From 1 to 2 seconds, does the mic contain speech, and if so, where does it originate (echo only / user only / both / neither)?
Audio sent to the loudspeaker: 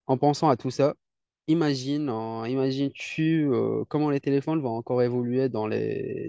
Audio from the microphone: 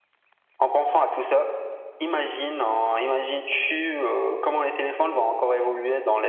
echo only